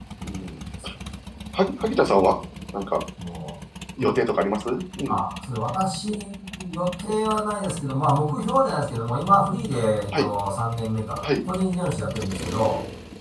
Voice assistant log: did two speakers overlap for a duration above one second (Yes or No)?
No